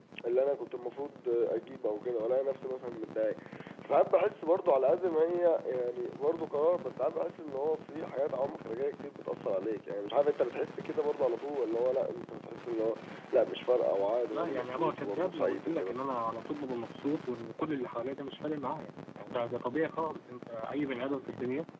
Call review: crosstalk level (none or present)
present